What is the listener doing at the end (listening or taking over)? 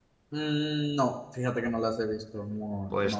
taking over